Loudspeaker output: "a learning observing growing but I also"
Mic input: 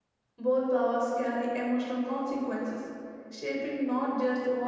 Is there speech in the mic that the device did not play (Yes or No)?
Yes